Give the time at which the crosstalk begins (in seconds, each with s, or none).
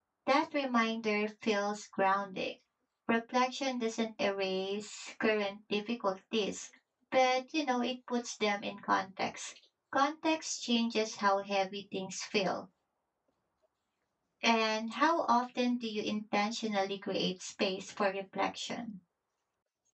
none